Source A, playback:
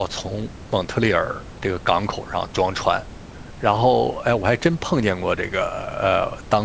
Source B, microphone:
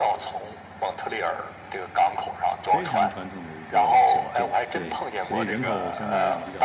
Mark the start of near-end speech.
3 s

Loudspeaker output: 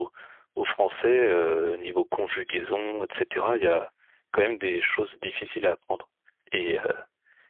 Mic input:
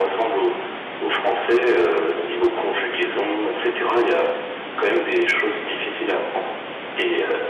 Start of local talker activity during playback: none

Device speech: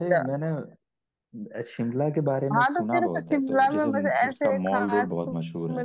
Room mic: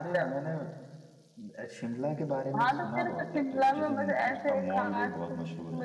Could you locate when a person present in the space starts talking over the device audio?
none

